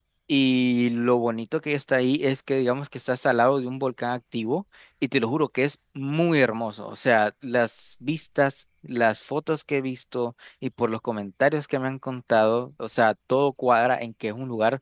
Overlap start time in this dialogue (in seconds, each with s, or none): none